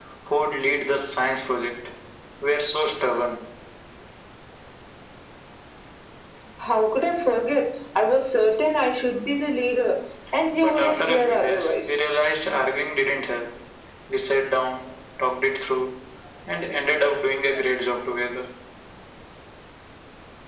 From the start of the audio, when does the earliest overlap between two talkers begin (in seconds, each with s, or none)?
10.5 s